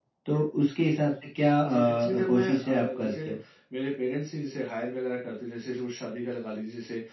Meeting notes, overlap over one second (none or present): present